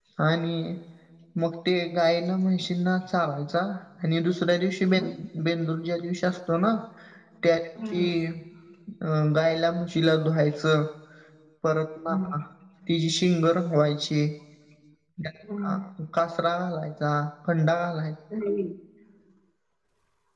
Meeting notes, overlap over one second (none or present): none